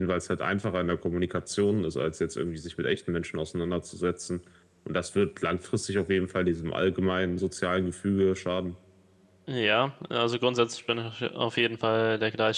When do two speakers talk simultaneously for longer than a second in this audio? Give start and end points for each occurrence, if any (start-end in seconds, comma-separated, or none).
none